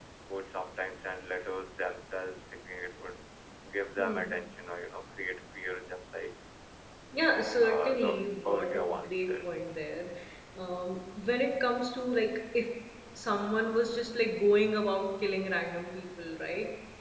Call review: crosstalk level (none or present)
present